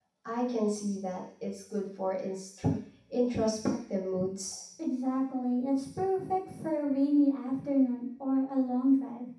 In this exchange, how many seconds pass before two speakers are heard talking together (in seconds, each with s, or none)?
none